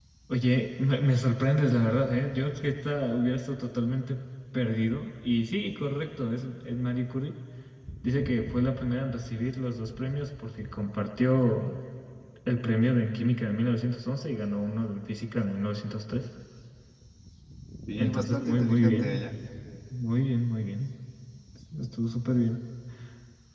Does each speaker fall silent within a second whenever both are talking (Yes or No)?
No